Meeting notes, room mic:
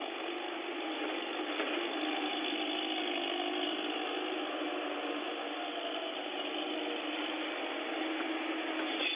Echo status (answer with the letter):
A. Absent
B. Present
A